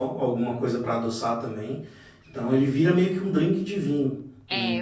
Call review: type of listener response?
taking over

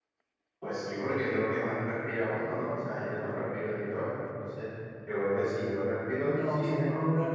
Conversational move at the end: taking over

